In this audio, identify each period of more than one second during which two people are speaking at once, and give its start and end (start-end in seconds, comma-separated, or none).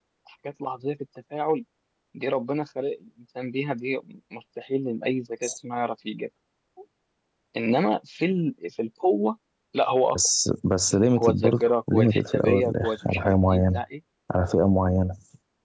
11.2-13.8